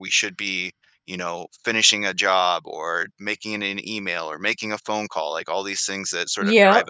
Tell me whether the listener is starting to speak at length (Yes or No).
Yes